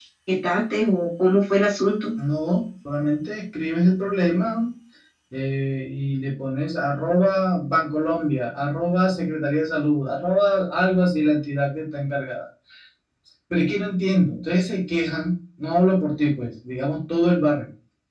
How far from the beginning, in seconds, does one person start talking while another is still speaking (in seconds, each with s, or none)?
none